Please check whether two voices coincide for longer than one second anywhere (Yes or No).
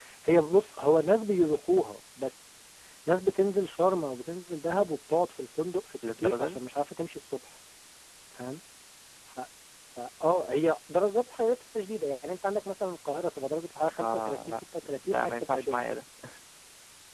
Yes